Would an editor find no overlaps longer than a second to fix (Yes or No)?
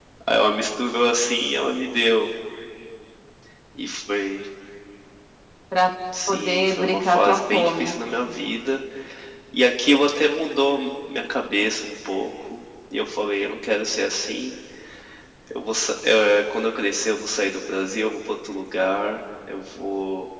No